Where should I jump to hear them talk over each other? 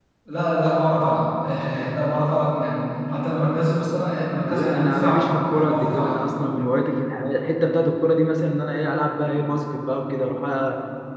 4 s

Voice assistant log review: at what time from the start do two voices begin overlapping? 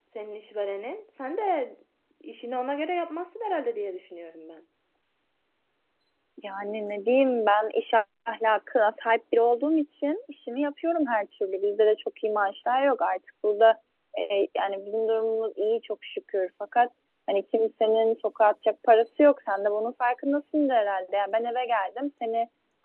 none

